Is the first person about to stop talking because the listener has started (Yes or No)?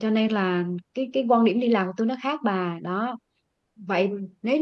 No